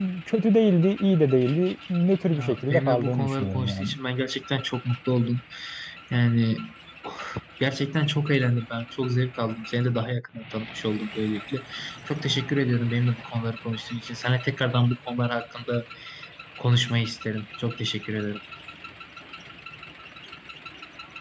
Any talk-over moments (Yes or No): Yes